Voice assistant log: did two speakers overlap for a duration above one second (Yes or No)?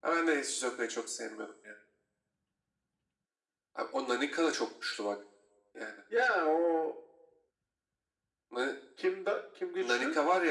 No